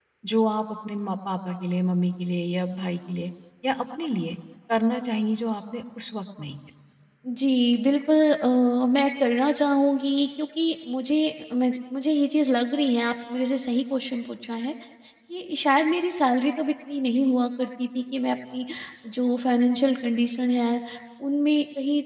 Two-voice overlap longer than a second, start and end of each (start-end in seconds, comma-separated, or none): none